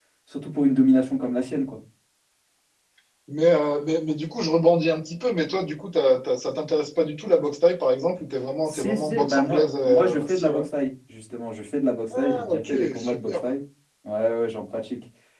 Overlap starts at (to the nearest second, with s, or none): 9 s